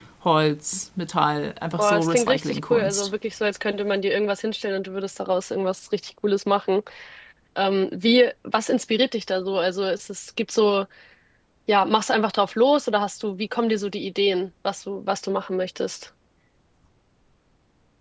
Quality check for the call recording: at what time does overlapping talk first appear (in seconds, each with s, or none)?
1.8 s